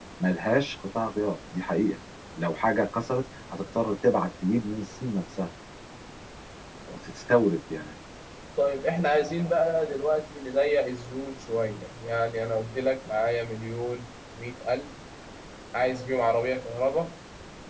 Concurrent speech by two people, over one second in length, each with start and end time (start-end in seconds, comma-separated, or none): none